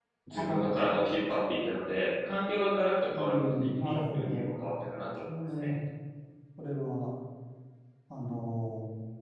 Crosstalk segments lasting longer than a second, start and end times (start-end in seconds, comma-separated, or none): 3.1-4.5